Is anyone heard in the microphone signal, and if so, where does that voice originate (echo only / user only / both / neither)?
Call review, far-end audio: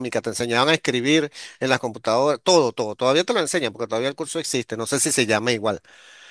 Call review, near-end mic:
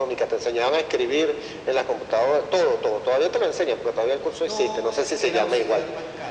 both